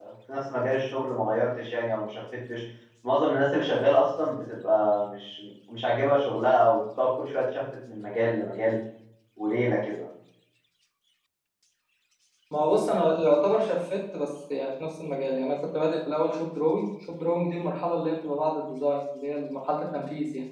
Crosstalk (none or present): none